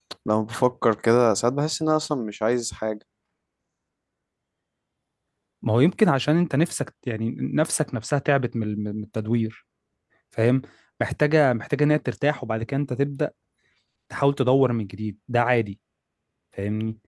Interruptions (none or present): none